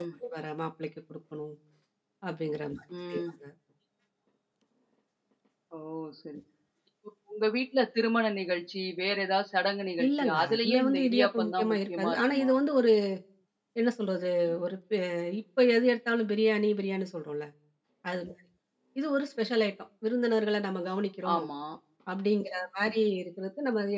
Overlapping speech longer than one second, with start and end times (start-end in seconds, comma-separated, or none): 10.0-12.5